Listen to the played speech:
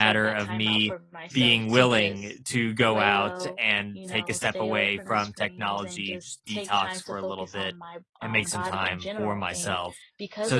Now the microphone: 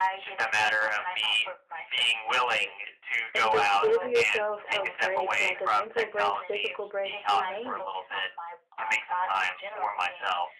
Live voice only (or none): and just give yourself a break, like a mental break, physical break, you name it.